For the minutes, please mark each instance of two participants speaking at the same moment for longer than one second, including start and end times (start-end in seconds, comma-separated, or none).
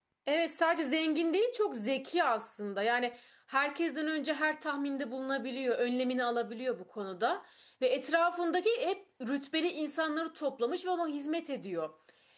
none